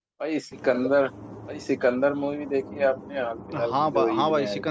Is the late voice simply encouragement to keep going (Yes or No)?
No